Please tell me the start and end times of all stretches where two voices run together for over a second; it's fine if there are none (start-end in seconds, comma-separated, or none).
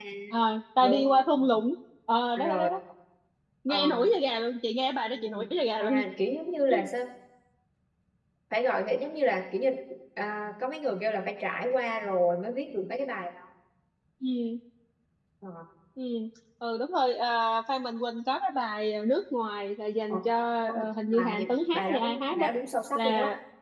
20.6-22.5